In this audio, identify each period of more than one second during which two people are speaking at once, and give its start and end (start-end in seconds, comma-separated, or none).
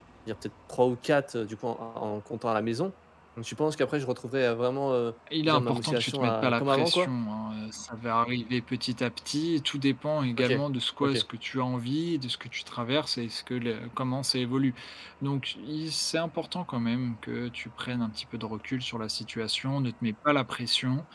5.5-7.1